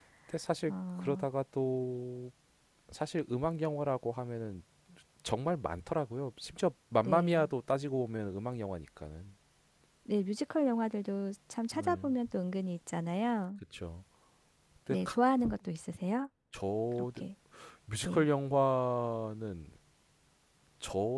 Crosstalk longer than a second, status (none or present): none